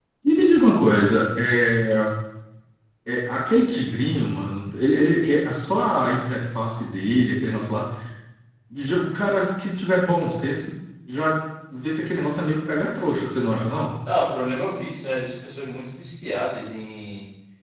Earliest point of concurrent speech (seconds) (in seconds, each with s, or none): none